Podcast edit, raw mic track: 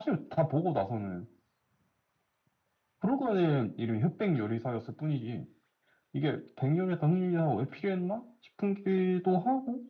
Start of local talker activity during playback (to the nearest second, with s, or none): none